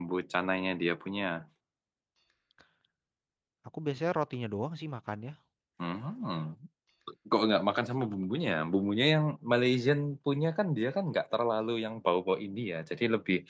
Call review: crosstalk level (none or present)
none